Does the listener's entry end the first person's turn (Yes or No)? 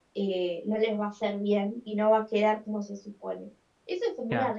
No